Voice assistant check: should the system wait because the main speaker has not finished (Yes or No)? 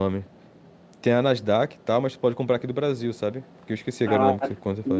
No